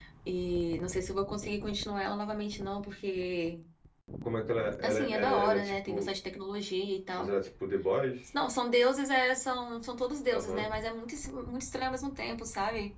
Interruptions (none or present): present